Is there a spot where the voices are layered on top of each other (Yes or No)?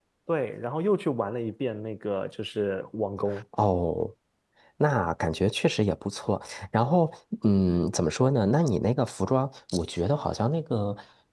No